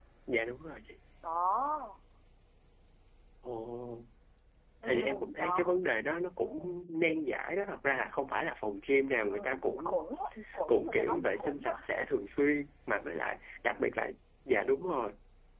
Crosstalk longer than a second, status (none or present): present